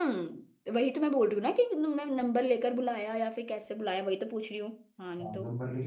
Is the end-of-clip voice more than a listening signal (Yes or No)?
Yes